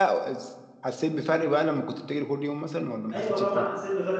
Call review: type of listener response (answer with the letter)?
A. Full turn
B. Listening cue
A